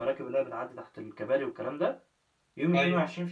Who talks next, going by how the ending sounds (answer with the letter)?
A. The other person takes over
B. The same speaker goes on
B